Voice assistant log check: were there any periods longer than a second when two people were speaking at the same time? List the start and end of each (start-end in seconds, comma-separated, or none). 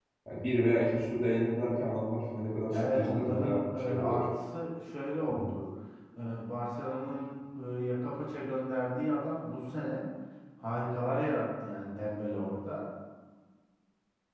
2.7-4.2